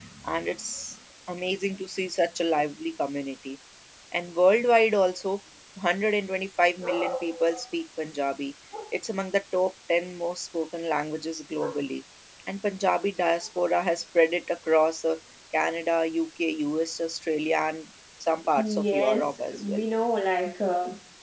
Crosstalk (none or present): present